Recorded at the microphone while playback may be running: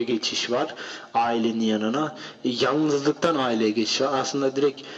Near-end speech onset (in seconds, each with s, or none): none